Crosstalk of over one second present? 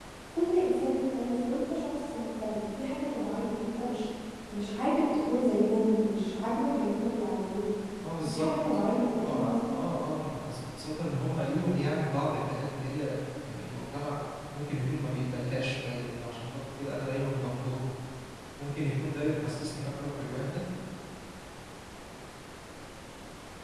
No

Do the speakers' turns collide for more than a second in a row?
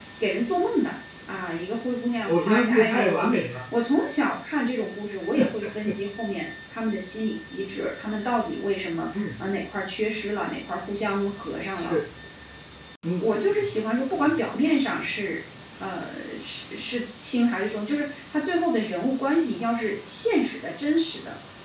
Yes, from 2.3 s

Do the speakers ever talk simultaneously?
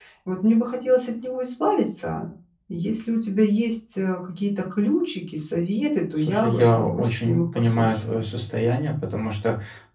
Yes, from 6.2 s

